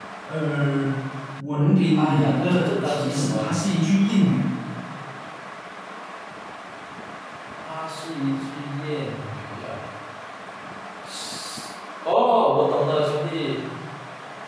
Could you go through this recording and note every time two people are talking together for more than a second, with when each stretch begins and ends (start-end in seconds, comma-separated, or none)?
2.0-3.5